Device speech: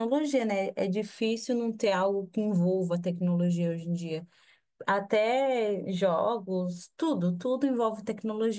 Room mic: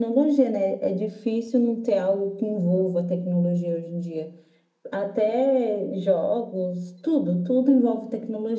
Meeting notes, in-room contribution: none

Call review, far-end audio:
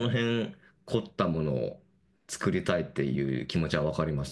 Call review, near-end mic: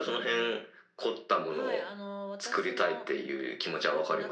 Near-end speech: present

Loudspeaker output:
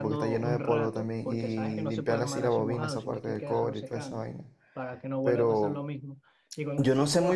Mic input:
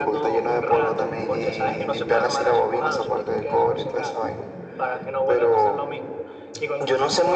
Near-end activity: none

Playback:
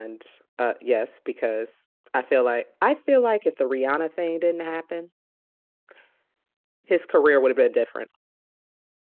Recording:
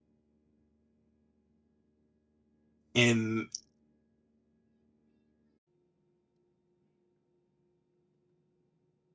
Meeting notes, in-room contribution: present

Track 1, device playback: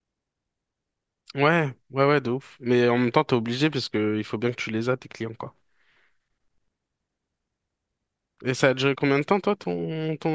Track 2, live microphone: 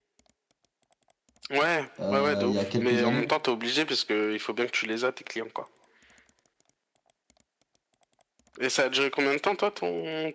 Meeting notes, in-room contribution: present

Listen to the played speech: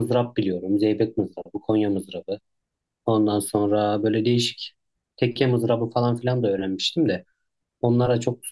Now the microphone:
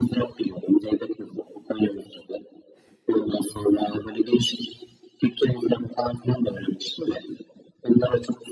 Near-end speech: none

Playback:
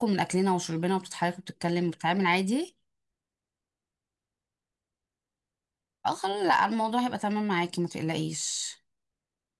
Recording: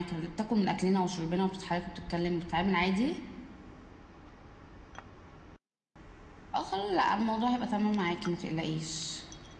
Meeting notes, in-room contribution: none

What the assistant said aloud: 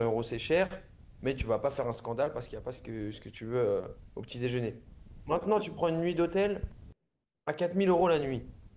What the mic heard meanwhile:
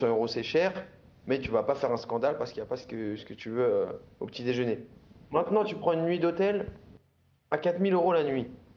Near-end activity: none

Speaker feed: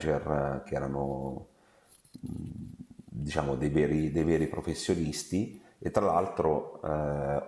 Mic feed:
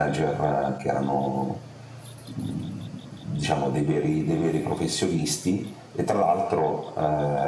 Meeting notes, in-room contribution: none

